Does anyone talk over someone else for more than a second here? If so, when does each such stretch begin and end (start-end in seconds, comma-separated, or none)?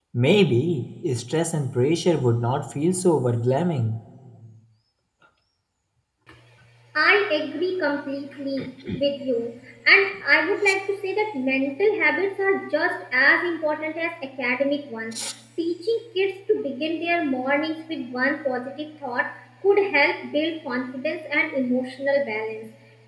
none